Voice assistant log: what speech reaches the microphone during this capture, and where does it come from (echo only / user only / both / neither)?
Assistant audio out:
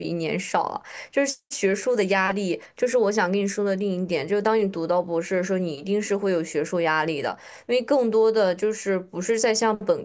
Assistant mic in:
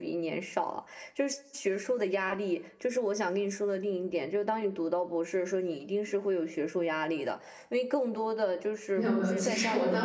both